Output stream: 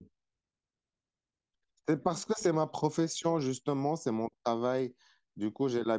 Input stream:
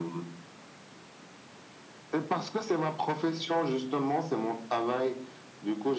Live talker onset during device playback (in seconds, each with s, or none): none